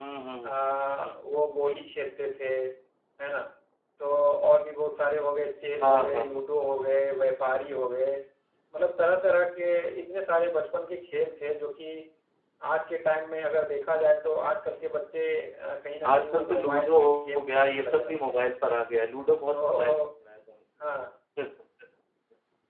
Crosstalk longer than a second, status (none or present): present